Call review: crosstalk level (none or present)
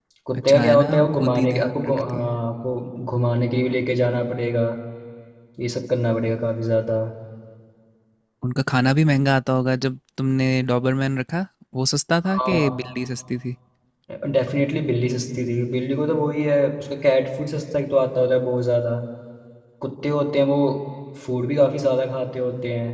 present